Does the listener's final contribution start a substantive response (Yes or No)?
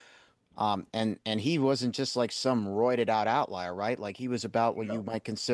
No